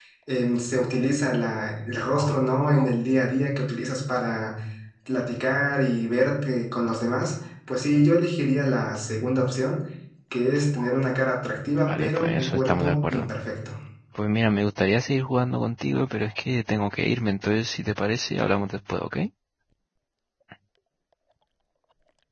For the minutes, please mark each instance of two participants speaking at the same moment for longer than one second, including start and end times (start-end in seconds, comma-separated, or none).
11.9-13.3